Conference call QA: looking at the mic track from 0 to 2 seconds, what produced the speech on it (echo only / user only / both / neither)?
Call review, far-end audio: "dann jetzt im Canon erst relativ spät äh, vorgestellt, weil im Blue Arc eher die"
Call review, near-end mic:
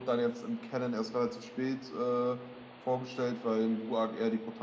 echo only